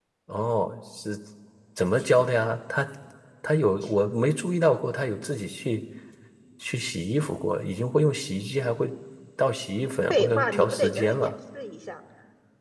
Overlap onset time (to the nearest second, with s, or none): 10 s